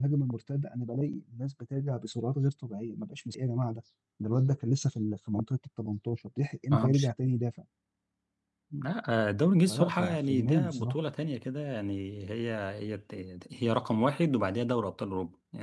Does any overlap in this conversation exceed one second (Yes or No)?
Yes